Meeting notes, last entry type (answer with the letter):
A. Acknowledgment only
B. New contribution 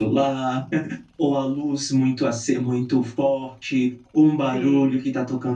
A